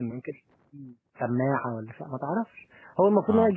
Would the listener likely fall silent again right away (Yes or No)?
Yes